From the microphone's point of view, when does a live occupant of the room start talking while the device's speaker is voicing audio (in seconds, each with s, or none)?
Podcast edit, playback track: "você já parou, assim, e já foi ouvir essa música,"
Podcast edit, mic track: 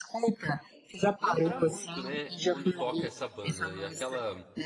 1.2 s